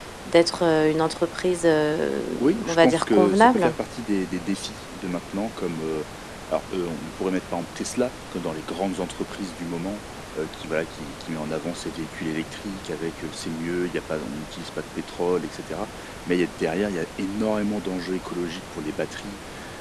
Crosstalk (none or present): present